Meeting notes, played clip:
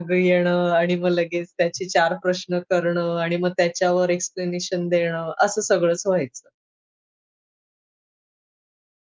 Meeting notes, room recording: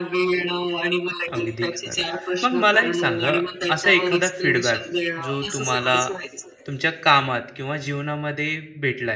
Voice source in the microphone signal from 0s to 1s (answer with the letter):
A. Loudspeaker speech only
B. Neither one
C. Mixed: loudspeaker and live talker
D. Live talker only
A